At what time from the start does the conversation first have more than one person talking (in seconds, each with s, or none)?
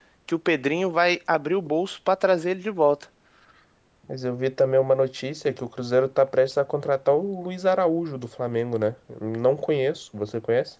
none